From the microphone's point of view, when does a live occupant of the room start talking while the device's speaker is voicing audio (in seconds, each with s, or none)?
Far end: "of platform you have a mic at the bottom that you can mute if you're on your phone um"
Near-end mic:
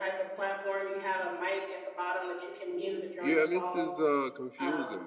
3.2 s